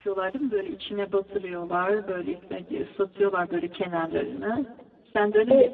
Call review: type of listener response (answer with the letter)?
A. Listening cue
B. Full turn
A